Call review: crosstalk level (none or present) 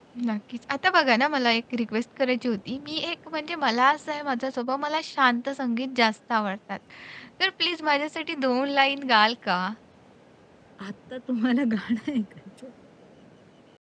none